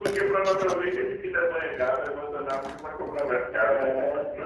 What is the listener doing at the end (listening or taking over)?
taking over